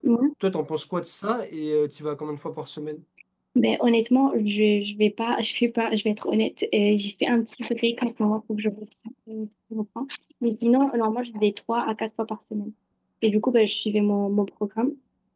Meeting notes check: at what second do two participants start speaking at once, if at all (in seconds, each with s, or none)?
none